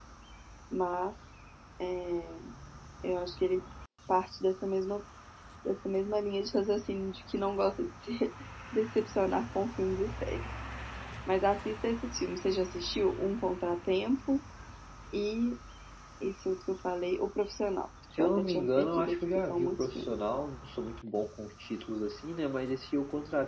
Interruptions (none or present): present